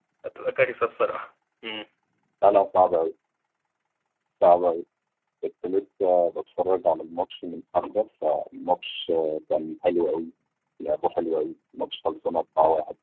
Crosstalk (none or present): none